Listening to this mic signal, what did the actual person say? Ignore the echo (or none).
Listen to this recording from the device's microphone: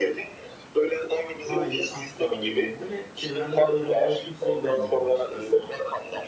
Hayır, asla öyle olmadı ve çevremde de öyle olan kimseyi görmedim açıkçası.